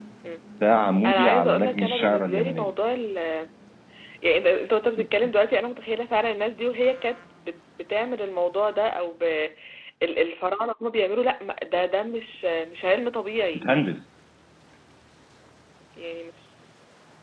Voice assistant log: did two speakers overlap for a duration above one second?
Yes, from 1.1 s

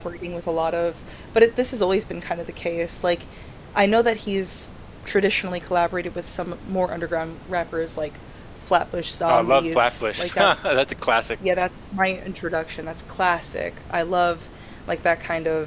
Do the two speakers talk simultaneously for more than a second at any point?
Yes, from 9.3 s

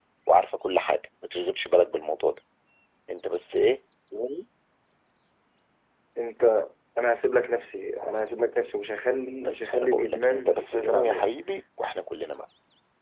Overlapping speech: Yes, from 9.4 s

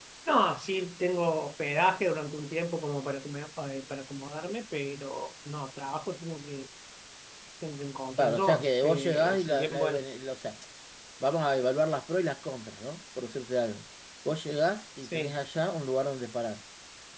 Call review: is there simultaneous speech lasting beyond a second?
Yes, from 8.2 s

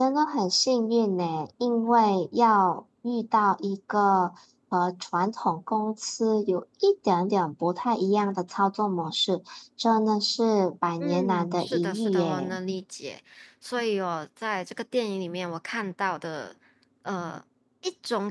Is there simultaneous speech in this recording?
Yes, from 11.0 s

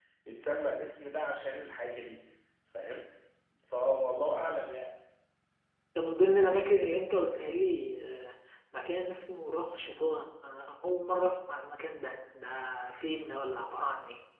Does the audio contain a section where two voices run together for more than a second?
No

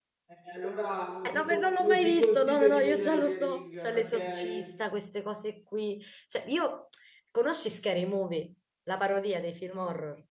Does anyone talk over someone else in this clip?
Yes, from 1.2 s

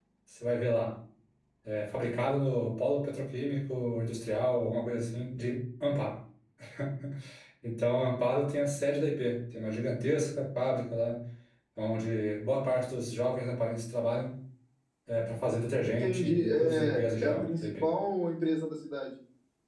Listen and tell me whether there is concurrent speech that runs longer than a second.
Yes, from 16.0 s

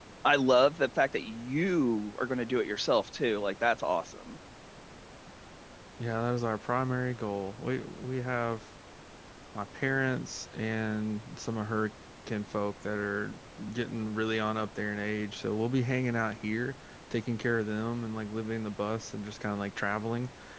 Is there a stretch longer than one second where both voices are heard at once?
No

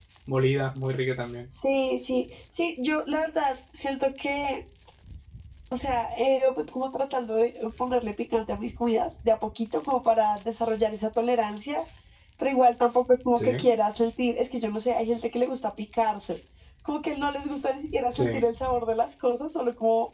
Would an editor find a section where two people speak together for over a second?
No

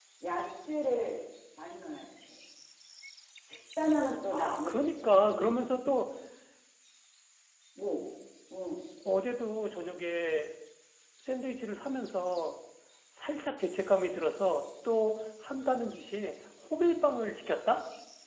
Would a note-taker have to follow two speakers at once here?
Yes, from 4.3 s

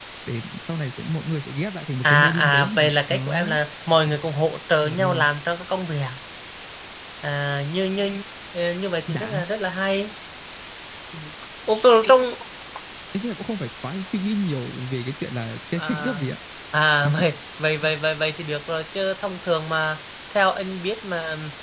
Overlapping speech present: Yes, from 2.0 s

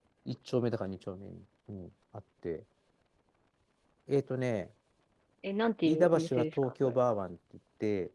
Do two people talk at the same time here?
Yes, from 5.8 s

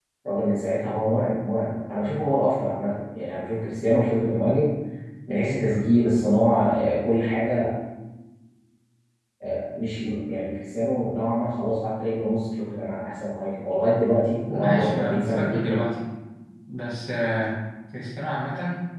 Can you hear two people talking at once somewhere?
Yes, from 14.5 s

